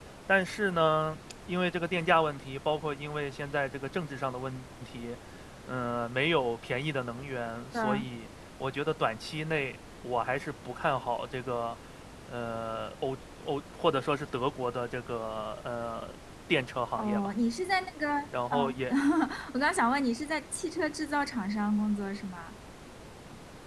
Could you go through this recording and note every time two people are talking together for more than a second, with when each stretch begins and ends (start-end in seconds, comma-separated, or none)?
none